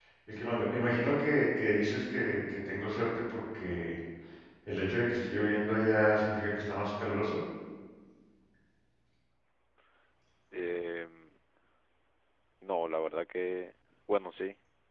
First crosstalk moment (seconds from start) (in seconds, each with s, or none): none